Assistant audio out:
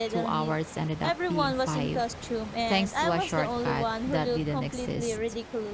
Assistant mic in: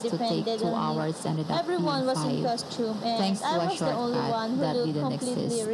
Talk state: echo only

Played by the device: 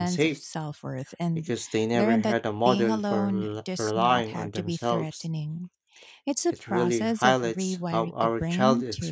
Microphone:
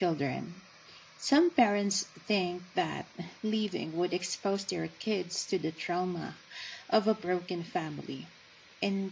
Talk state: user only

